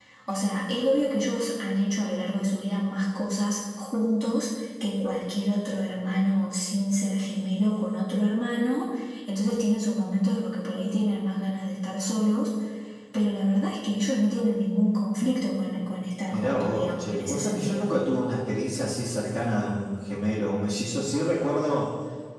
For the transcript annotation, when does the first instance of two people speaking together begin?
16 s

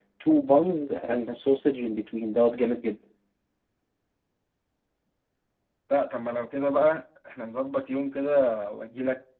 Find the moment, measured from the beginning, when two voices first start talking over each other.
none

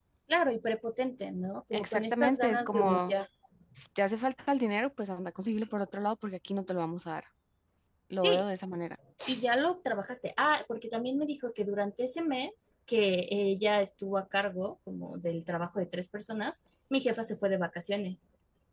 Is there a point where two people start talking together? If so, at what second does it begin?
2 s

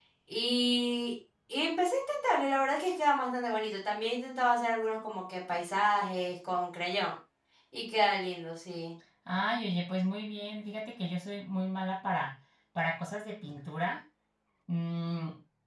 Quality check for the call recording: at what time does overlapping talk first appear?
none

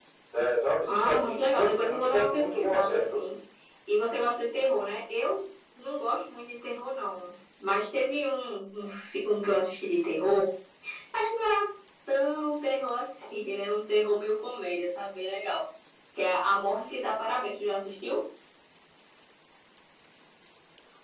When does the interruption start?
1 s

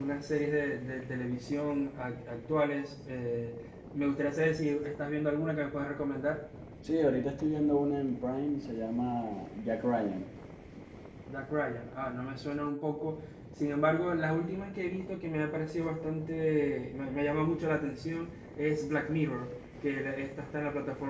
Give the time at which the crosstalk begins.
none

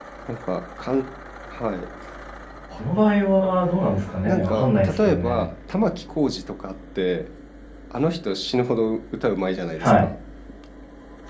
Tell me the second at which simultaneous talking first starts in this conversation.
4 s

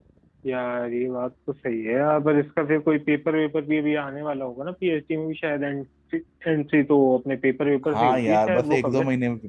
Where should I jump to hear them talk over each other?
8 s

